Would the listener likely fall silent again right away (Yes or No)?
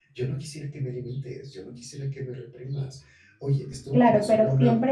No